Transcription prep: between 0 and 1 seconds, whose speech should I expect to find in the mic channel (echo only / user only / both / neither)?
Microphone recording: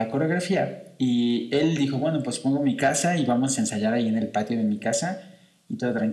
echo only